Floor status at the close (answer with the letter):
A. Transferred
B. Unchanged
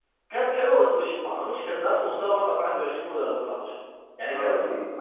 B